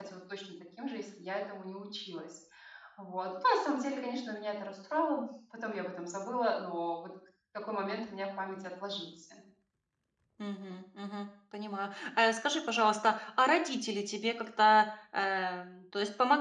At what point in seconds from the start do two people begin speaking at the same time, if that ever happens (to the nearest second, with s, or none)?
none